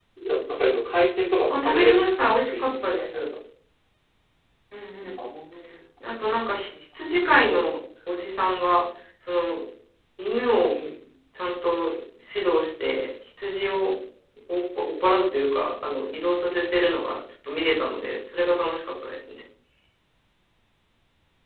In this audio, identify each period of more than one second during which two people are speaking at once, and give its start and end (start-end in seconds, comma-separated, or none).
1.5-3.2